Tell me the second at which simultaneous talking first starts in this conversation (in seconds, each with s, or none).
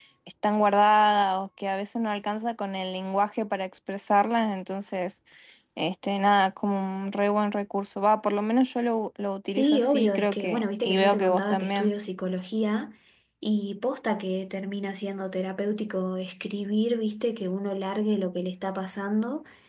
9.4 s